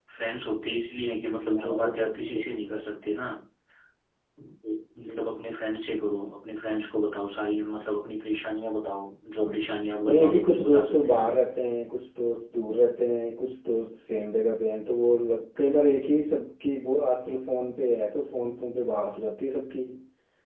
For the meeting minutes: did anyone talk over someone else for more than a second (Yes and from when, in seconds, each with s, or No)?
Yes, from 1.5 s